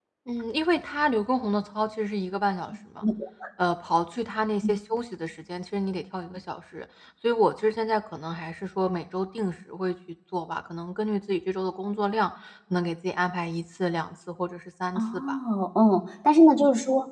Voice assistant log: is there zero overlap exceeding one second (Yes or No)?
Yes